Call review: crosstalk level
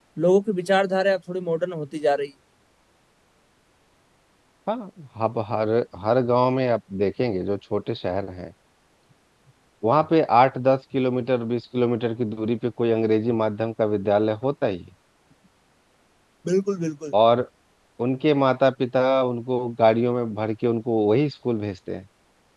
none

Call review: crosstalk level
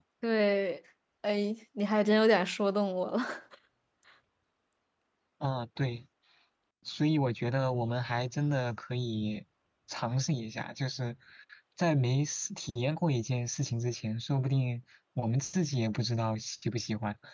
none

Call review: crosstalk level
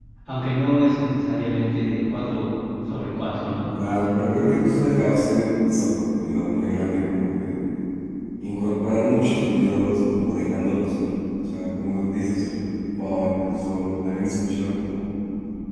none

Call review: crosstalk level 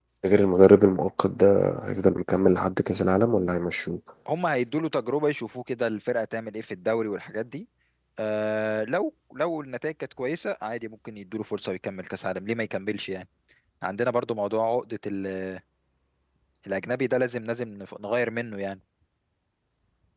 none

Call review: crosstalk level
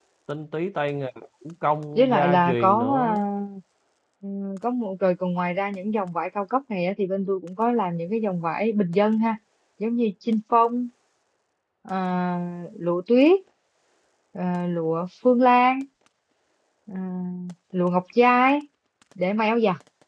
present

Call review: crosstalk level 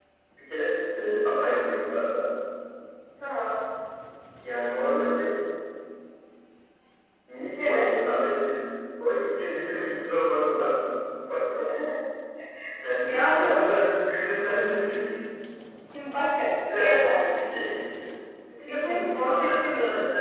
present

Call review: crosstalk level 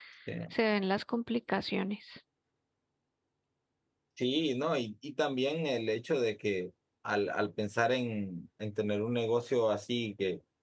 none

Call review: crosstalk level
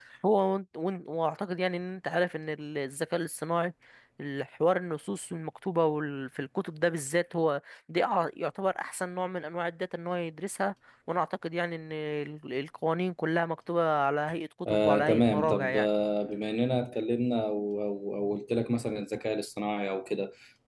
present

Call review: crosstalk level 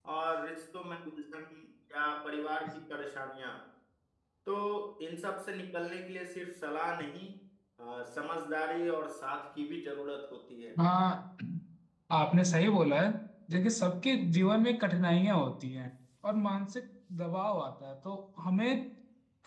none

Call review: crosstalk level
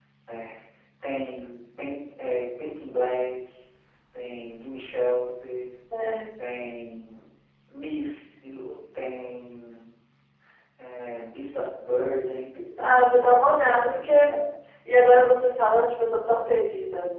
present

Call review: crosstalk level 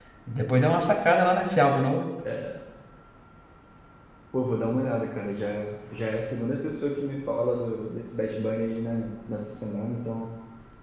none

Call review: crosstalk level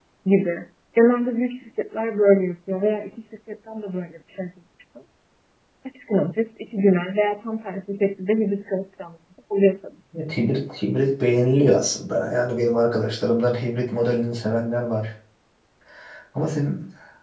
none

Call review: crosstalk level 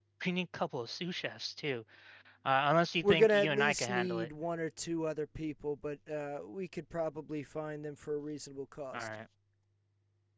present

